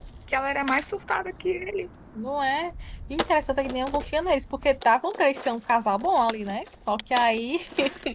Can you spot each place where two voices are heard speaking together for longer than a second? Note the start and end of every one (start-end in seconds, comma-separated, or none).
none